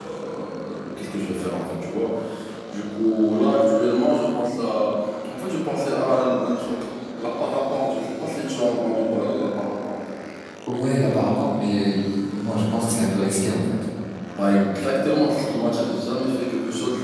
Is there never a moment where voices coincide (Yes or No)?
Yes